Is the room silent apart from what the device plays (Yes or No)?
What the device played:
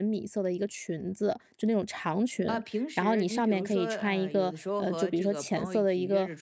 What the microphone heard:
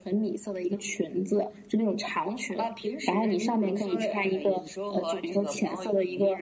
Yes